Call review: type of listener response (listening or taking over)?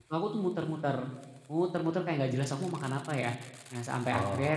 listening